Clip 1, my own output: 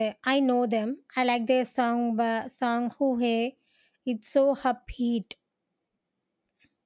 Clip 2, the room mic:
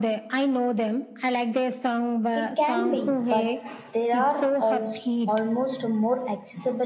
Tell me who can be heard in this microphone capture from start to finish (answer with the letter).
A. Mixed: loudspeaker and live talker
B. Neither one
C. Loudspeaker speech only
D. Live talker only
A